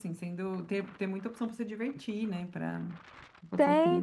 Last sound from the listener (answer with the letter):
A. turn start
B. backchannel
A